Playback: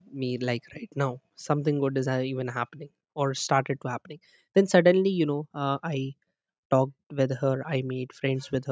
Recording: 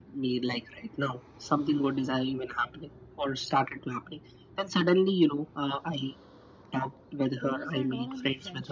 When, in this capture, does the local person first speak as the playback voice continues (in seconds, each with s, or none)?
7.4 s